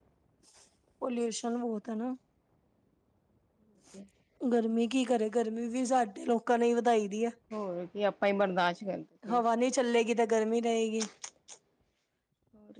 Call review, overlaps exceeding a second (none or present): none